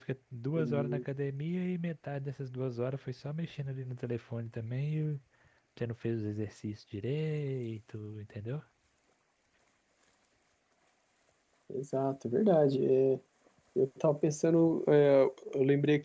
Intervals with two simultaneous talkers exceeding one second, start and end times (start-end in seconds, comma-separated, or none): none